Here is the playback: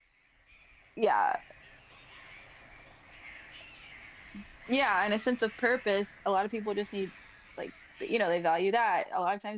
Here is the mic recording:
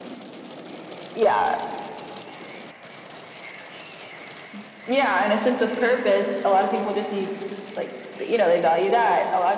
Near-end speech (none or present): none